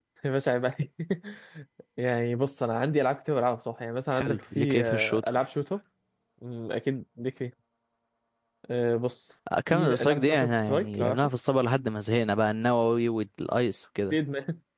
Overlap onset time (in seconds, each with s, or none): 4.1 s